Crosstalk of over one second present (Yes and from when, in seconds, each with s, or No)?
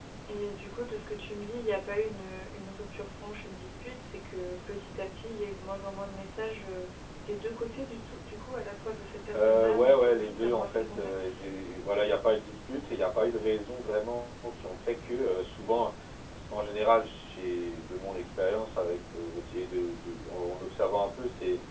Yes, from 9.3 s